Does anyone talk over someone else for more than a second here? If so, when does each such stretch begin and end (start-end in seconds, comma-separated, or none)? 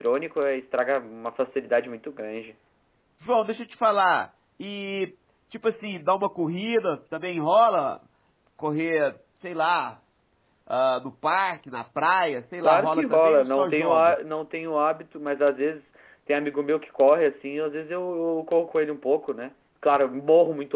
12.6-14.1